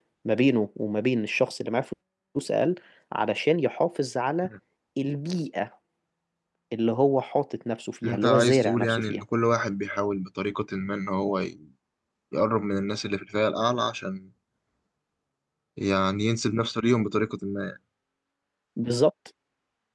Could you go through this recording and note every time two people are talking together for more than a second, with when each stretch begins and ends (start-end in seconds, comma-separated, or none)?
8.0-9.2